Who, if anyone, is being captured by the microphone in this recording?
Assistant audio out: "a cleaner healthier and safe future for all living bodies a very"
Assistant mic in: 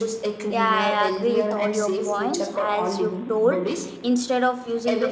both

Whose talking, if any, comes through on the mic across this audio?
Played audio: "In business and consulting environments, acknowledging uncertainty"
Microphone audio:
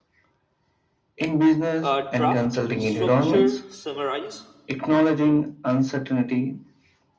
both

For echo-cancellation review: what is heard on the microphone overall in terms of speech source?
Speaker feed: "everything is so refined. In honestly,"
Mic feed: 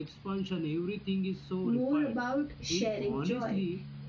both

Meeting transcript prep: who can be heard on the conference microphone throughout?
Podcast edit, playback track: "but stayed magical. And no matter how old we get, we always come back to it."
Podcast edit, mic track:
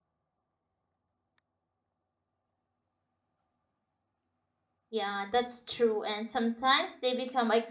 user only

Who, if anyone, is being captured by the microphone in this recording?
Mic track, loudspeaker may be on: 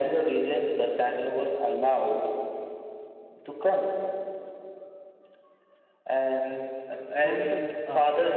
both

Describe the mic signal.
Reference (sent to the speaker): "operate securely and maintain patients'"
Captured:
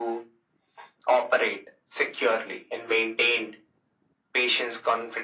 echo only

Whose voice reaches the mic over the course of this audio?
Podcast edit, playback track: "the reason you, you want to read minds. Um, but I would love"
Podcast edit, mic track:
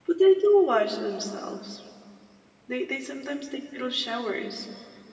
user only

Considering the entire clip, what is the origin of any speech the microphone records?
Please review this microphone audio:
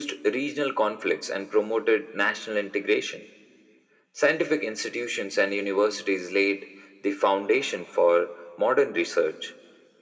echo only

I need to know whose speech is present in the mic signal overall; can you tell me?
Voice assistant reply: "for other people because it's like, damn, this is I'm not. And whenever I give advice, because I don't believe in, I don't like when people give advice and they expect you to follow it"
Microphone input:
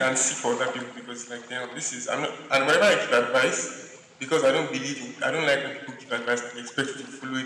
echo only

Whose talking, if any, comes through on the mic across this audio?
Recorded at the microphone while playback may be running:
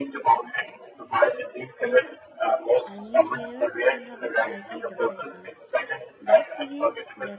both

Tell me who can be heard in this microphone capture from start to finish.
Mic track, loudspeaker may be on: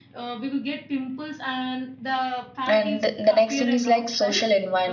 both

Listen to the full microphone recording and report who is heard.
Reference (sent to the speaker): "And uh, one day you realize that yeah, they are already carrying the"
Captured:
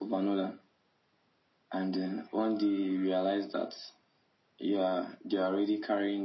echo only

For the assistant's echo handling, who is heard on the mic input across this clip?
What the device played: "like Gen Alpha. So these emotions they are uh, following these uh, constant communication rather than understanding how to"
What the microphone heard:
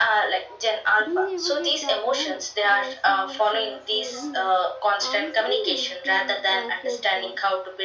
both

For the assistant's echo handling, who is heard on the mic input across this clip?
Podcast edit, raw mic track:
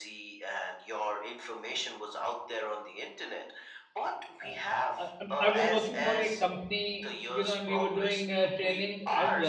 both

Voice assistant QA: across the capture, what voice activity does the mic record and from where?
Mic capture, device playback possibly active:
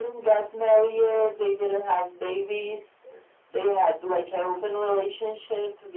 echo only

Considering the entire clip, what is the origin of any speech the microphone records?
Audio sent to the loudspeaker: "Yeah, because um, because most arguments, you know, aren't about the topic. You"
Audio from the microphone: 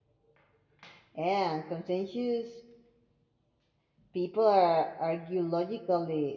user only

